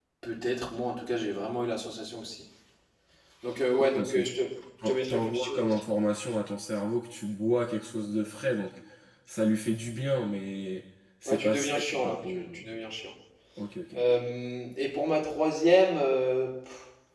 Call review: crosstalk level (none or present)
present